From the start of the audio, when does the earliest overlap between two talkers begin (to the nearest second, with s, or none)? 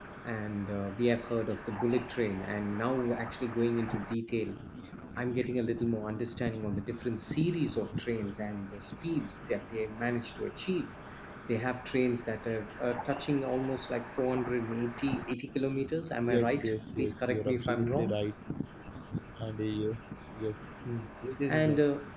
16 s